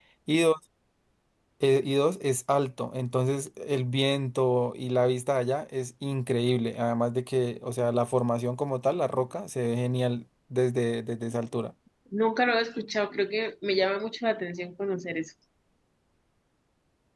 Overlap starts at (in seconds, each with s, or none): none